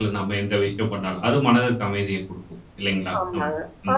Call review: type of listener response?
taking over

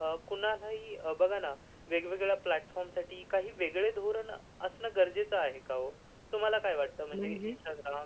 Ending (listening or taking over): listening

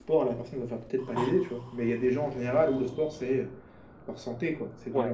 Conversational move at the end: taking over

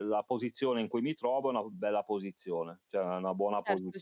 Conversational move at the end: taking over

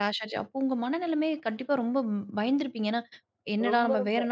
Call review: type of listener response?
listening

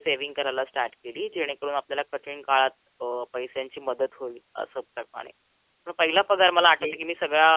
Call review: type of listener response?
listening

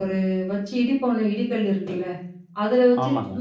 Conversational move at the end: listening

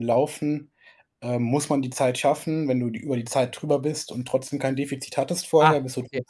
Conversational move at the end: taking over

